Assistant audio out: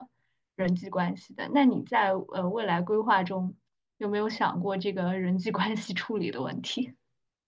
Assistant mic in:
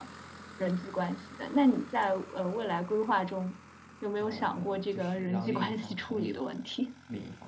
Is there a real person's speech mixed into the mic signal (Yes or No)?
Yes